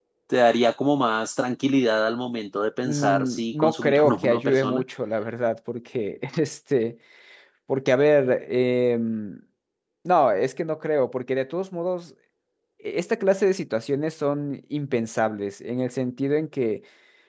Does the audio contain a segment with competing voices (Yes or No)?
Yes